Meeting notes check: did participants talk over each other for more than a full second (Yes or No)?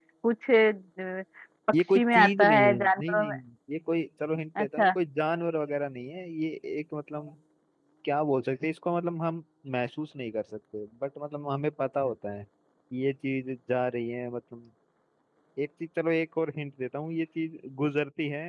Yes